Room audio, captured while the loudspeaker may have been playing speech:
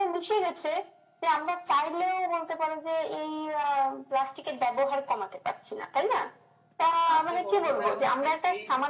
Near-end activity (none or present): present